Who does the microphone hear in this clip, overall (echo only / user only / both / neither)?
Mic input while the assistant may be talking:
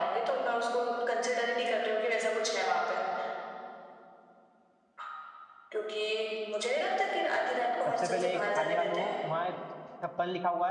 both